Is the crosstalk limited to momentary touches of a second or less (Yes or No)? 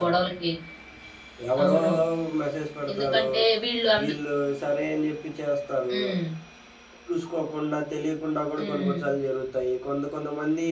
Yes